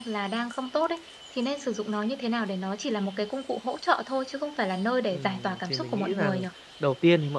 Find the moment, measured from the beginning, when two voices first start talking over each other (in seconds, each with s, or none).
5.1 s